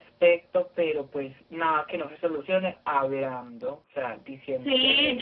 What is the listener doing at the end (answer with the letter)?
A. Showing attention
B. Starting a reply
B